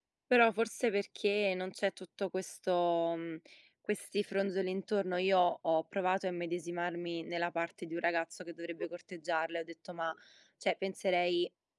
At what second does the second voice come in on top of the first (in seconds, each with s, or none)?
none